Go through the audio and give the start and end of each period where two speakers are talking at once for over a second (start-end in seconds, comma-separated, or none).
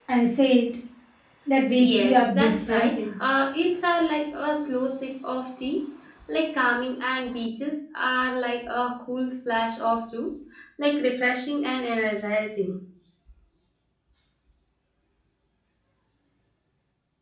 1.8-3.2